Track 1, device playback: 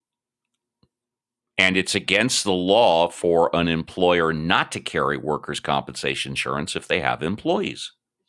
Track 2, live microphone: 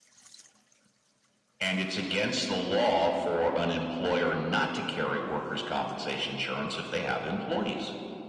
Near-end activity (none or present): none